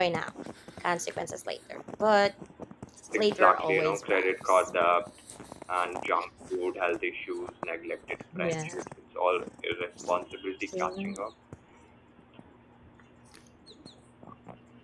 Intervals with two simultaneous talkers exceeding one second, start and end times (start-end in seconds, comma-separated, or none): 3.2-4.7